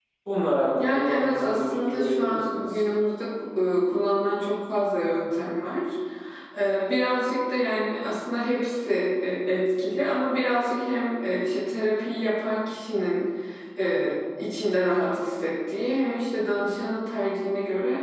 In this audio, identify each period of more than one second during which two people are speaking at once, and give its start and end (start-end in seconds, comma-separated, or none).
0.8-2.7